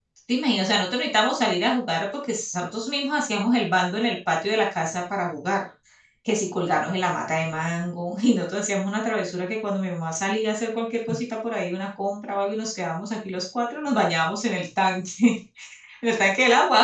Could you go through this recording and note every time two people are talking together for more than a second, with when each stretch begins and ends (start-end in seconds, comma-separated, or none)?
none